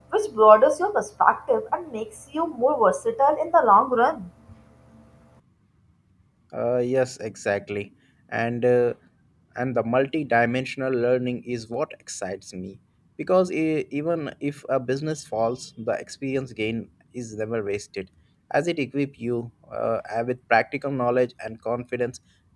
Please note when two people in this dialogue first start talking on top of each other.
none

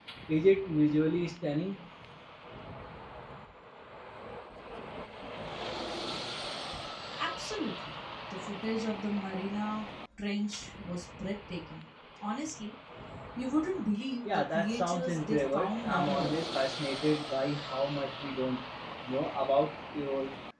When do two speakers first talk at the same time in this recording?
14 s

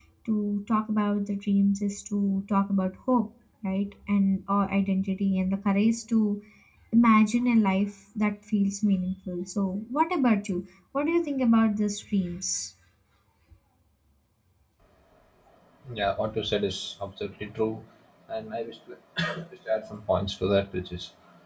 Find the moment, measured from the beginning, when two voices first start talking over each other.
none

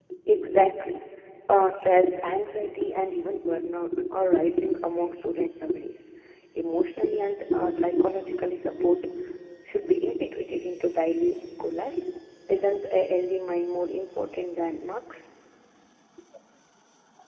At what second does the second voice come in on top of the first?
none

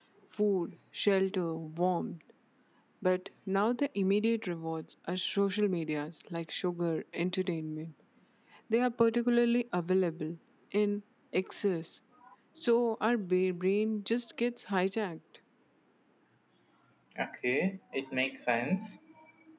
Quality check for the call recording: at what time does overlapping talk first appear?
none

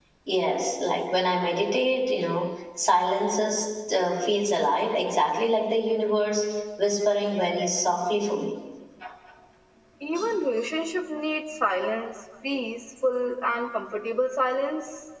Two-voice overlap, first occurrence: none

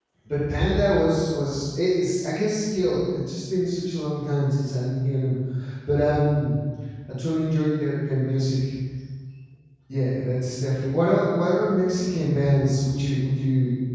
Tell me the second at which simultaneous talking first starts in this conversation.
none

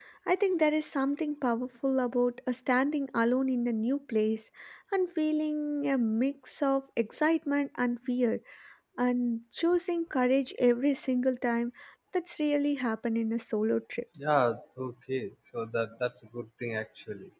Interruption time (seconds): none

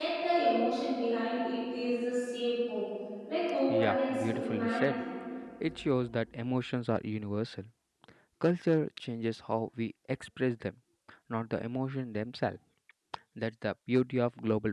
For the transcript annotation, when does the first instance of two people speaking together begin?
4 s

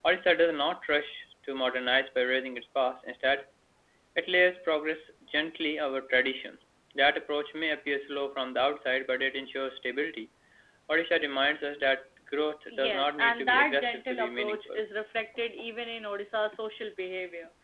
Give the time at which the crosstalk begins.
13 s

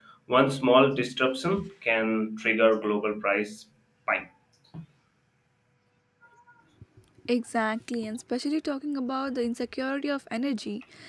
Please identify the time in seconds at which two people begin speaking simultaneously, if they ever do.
none

